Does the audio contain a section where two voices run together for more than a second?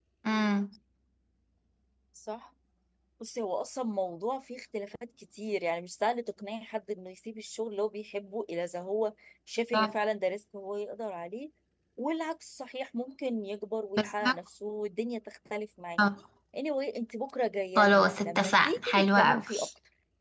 Yes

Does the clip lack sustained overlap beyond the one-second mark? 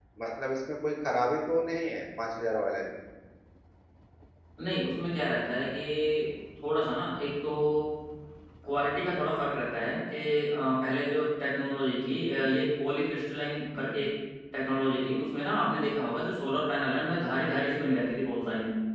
Yes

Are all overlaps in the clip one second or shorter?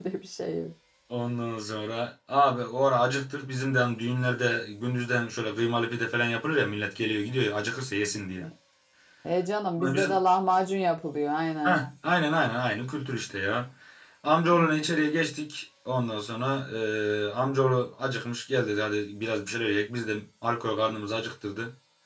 Yes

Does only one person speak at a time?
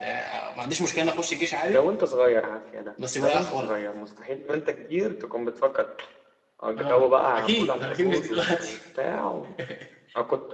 No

